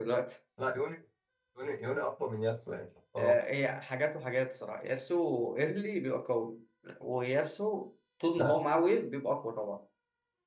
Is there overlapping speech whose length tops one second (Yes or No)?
No